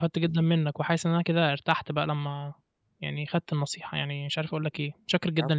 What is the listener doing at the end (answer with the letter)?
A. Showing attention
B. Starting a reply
B